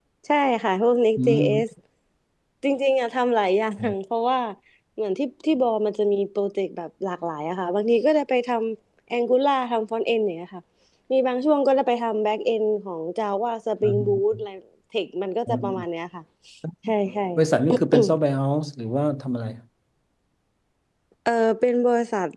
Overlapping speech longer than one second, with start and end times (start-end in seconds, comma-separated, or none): none